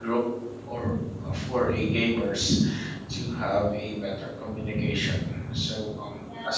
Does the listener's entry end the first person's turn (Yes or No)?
No